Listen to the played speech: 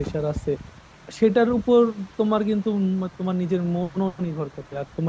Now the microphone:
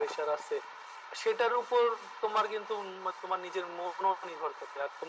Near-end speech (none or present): none